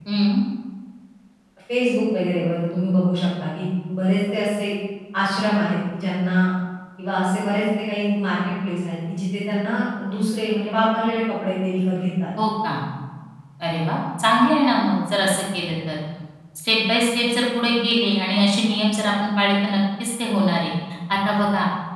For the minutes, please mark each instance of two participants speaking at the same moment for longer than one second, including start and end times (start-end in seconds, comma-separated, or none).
none